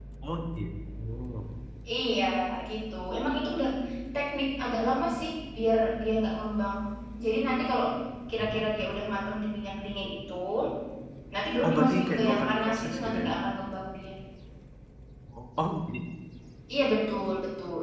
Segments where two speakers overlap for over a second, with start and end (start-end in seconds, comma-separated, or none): 11.6-13.3